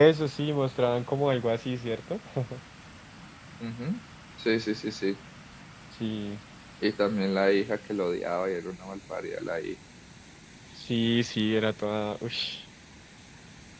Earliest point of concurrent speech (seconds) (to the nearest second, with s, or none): none